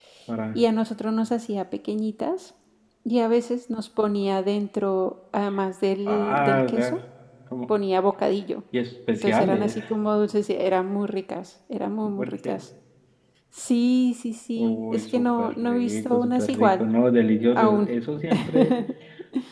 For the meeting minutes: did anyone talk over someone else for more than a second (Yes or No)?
Yes